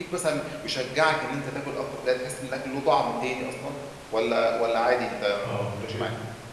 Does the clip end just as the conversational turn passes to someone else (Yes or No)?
Yes